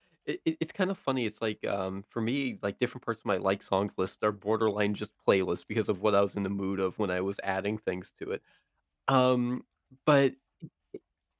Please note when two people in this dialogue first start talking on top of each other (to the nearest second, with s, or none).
none